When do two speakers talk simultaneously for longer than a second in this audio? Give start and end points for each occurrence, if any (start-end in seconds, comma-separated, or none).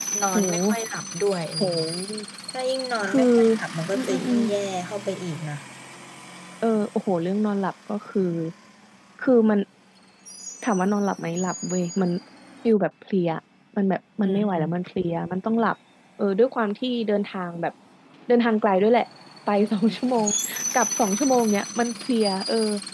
none